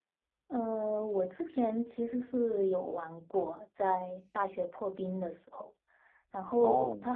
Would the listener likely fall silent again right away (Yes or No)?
Yes